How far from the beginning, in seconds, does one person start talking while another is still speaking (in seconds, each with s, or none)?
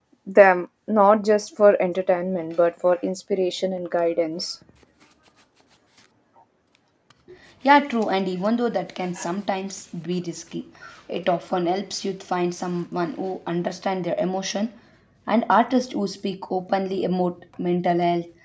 none